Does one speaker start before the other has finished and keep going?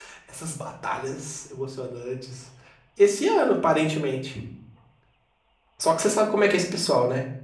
No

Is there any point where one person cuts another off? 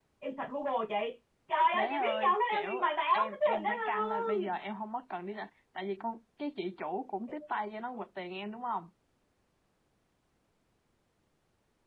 Yes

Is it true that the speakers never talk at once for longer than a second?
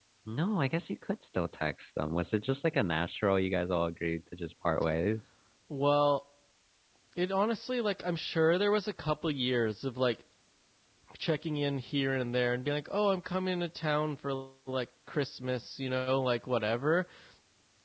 Yes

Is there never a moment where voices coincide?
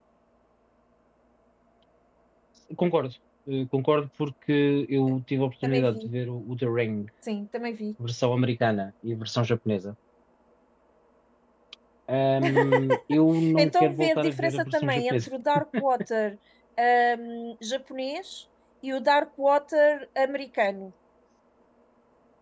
No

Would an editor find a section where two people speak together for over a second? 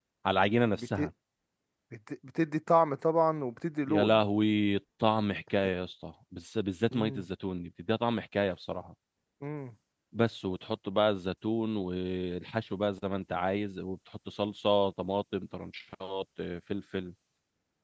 No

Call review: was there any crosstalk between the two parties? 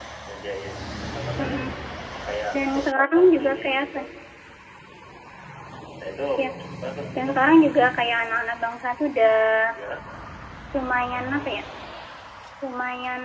Yes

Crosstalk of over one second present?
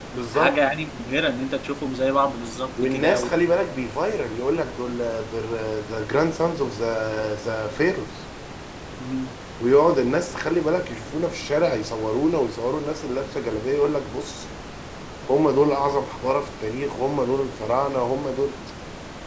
No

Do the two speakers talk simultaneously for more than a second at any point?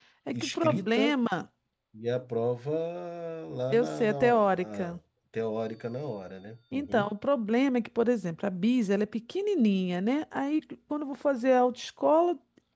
Yes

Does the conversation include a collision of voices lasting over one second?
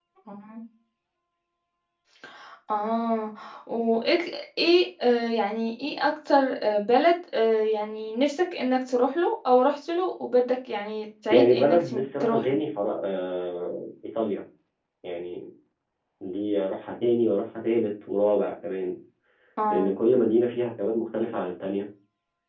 Yes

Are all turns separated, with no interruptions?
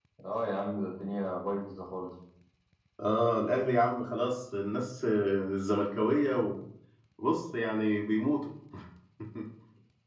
Yes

